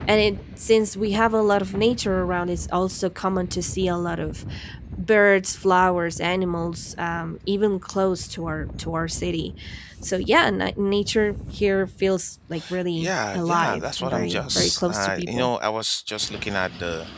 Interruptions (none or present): present